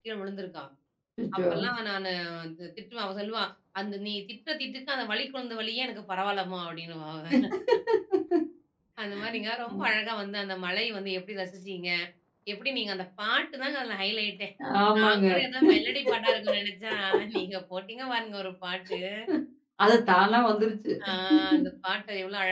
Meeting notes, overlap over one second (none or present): none